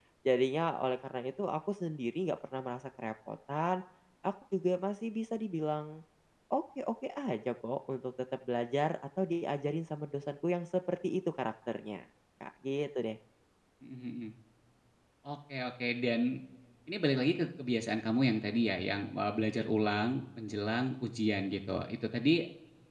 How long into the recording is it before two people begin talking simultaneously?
none

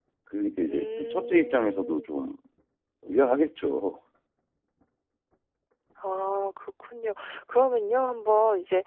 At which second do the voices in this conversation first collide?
0.7 s

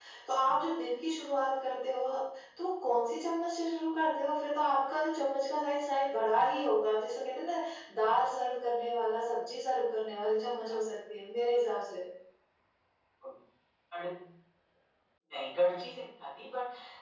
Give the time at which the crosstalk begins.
none

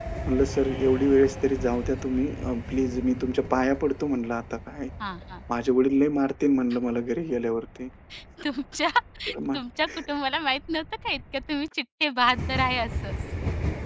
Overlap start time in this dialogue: none

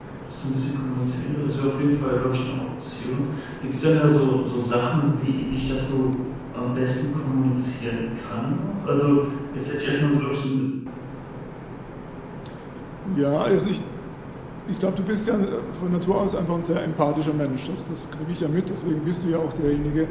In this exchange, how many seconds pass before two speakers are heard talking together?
none

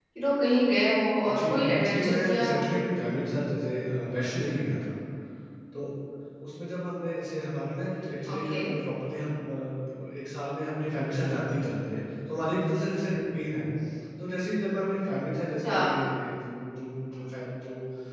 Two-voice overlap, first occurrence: 1.3 s

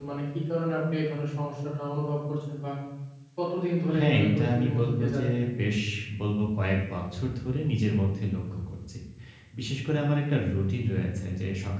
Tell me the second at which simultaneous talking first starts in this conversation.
4.0 s

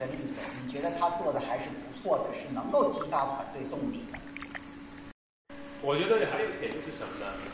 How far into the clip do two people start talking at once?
none

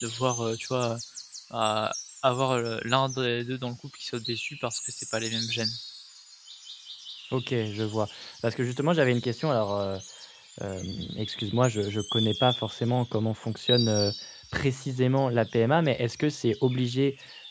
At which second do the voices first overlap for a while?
none

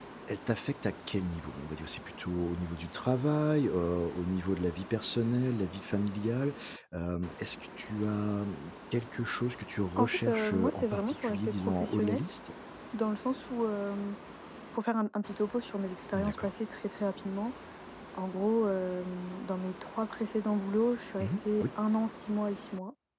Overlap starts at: 10.0 s

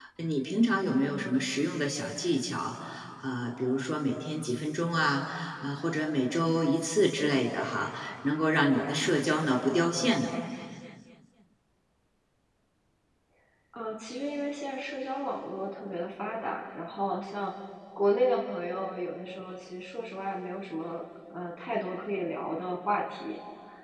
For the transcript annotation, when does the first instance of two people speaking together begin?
none

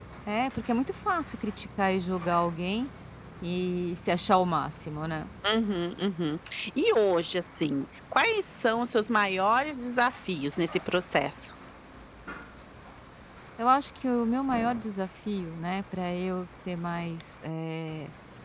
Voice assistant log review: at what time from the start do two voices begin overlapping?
none

